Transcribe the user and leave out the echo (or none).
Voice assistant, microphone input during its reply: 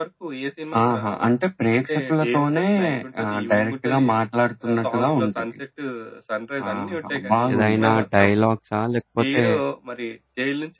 ఏదైనా డైలాగ్సా? లేకపోతే